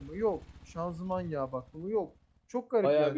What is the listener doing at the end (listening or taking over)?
taking over